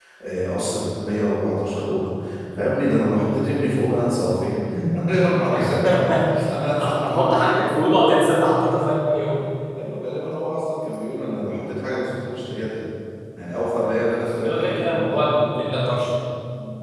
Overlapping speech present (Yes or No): Yes